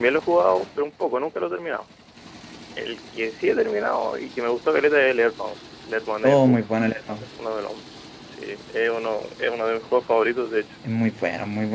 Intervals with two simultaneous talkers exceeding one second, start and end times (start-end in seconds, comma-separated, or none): none